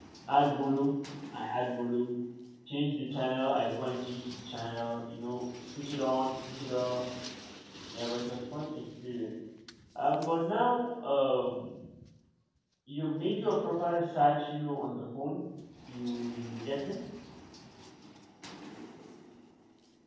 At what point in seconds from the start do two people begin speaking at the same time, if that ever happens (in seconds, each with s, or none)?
none